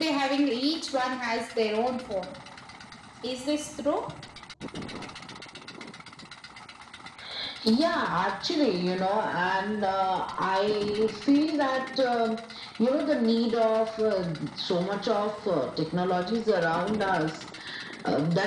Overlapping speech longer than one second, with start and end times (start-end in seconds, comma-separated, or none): none